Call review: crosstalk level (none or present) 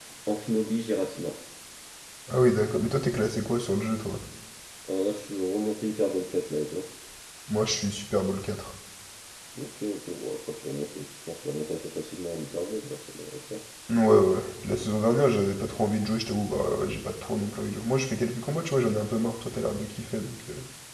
none